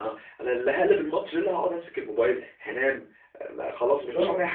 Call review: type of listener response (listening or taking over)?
taking over